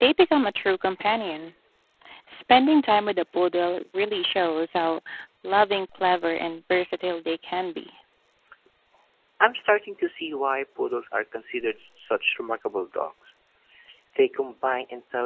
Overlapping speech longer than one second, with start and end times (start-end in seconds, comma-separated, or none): none